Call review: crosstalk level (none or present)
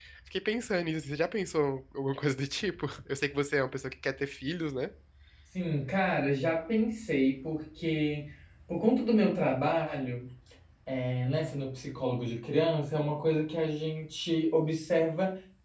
none